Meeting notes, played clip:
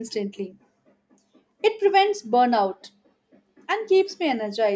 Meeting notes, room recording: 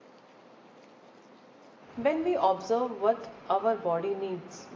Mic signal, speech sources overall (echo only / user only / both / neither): user only